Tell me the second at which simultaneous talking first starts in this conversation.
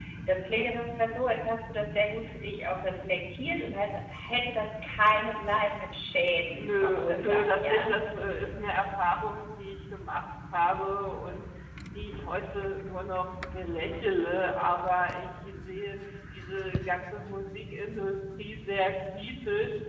6.5 s

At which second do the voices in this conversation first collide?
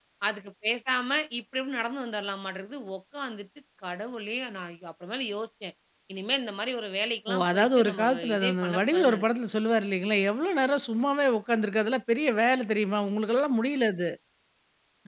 7.3 s

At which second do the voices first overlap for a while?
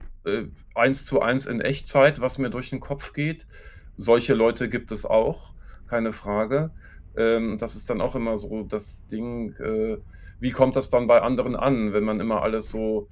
none

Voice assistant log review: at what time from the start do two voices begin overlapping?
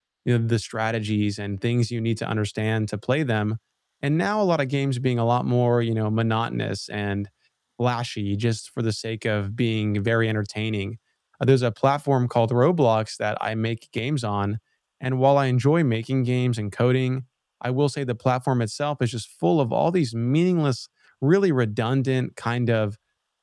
none

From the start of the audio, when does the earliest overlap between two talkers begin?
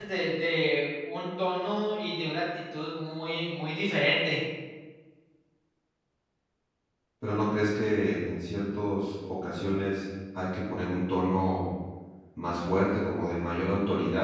none

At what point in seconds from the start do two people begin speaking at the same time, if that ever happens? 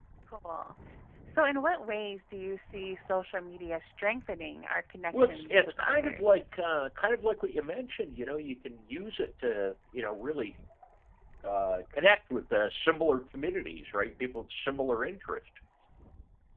5.1 s

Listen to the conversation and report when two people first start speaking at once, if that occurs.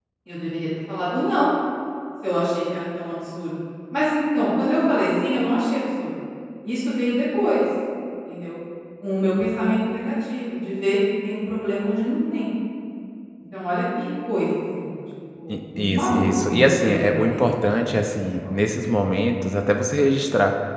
15.5 s

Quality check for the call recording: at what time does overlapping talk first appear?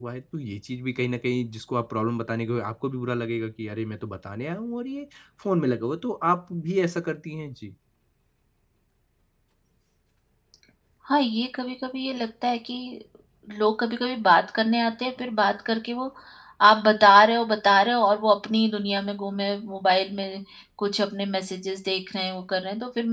none

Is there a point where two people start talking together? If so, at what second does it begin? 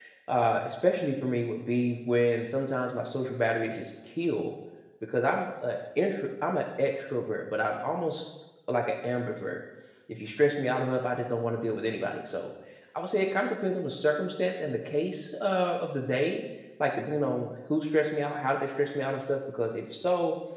none

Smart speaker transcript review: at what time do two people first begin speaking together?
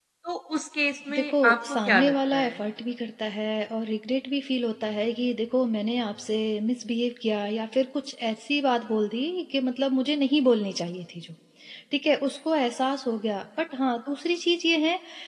1.1 s

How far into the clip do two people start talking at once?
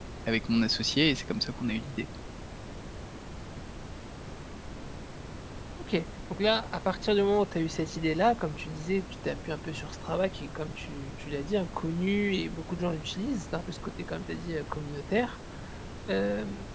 none

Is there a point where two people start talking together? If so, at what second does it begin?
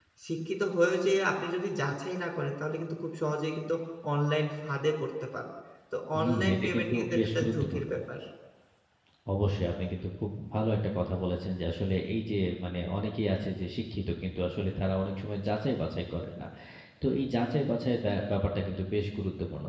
6.1 s

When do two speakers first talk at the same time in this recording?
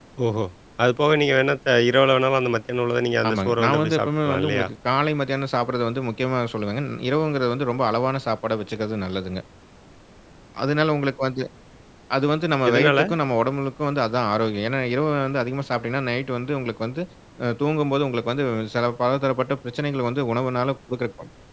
3.3 s

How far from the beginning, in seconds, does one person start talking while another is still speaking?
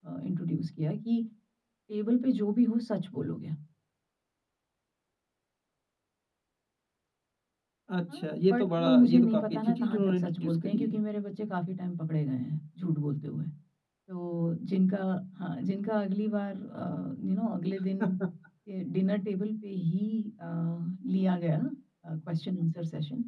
8.1 s

